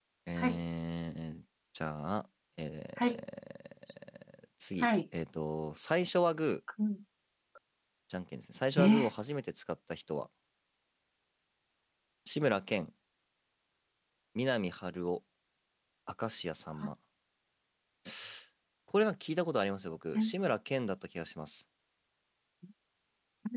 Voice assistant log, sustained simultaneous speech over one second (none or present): none